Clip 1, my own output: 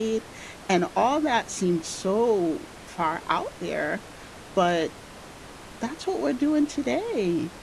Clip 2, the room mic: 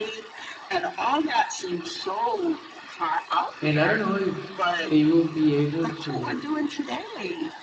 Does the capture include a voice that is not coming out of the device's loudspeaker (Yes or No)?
Yes